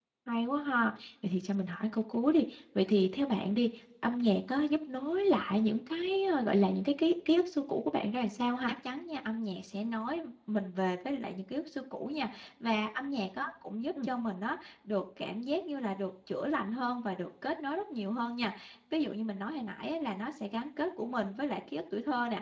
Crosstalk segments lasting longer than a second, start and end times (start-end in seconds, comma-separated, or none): none